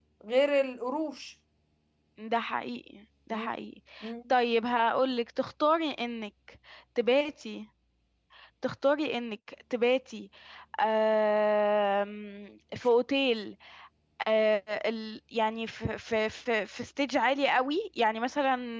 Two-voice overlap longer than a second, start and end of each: none

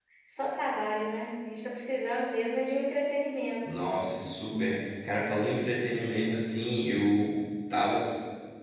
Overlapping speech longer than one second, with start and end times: none

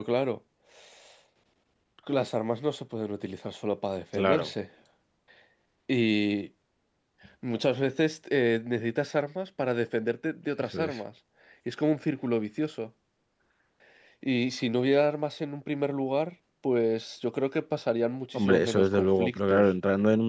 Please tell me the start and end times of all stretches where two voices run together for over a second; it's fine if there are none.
18.3-19.7

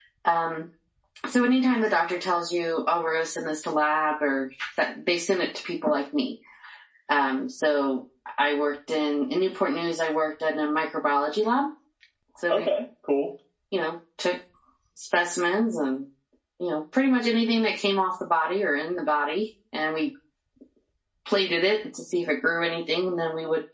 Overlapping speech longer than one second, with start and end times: none

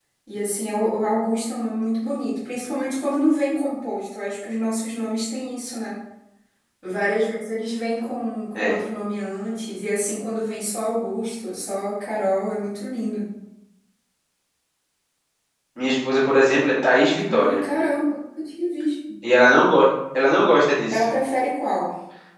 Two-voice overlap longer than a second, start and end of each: none

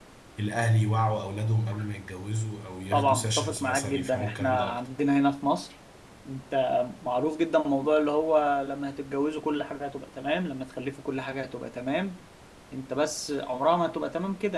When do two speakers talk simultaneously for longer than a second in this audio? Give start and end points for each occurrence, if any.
2.9-4.8

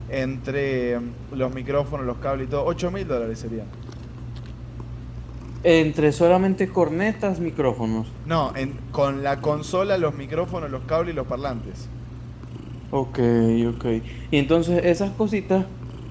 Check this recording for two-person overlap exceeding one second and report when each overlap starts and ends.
none

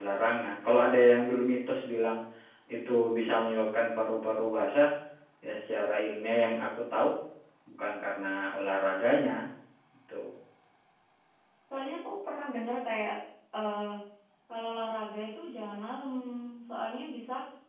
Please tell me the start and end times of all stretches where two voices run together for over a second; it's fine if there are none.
none

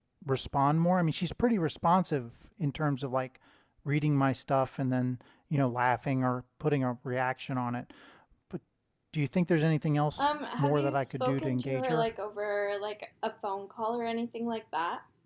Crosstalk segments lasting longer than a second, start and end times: 10.2-12.1

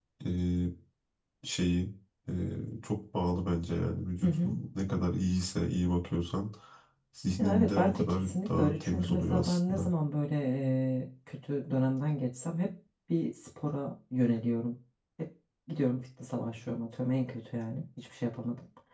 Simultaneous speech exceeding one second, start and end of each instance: 7.4-9.9

